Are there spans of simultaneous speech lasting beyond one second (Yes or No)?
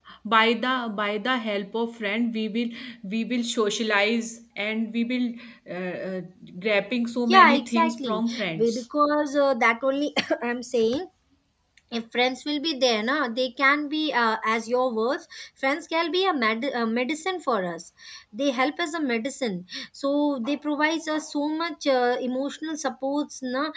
Yes